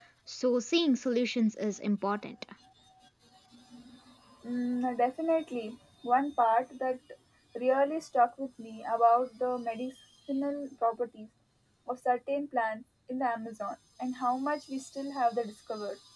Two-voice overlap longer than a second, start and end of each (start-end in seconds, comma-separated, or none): none